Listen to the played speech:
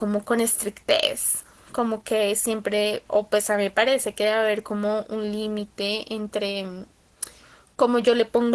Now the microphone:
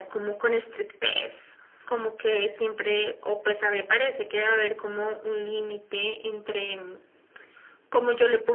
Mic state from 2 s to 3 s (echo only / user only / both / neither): echo only